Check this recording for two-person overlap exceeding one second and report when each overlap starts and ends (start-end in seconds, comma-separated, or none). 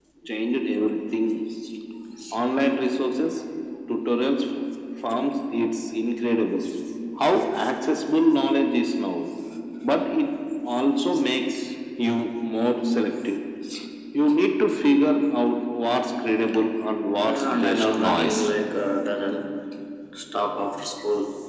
17.2-18.5